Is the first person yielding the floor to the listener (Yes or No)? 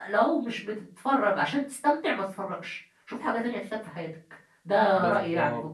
Yes